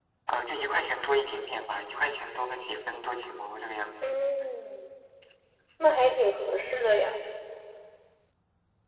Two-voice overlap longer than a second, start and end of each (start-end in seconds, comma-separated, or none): none